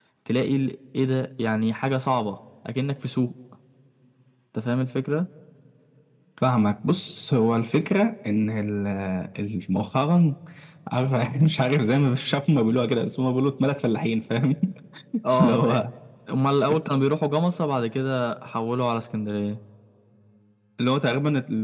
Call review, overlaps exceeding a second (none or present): none